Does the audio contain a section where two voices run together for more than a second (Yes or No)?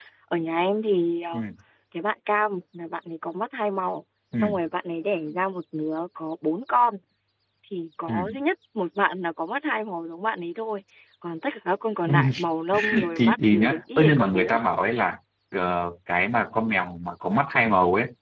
Yes